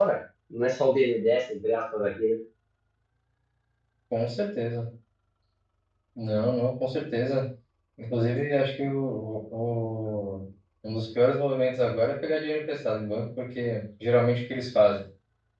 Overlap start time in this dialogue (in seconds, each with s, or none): none